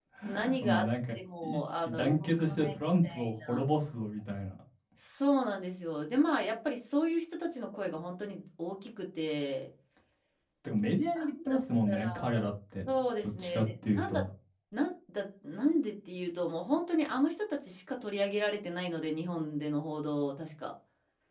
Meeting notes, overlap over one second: present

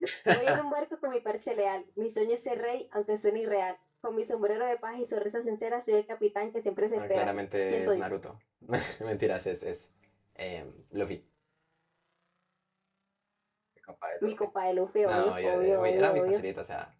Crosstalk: present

